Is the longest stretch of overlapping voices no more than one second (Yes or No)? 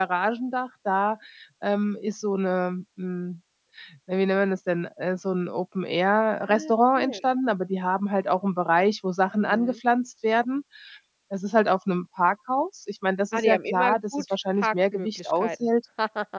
No